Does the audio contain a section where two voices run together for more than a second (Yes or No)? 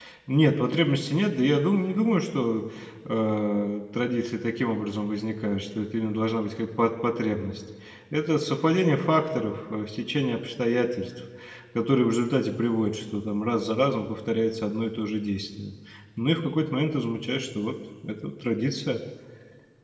No